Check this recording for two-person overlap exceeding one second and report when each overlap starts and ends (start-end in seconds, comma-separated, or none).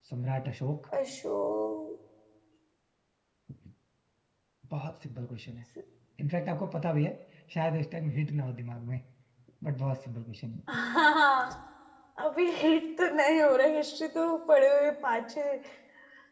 none